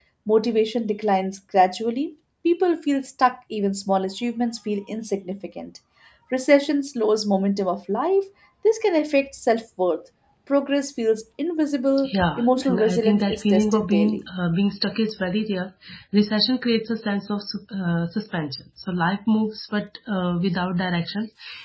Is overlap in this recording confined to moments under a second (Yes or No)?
No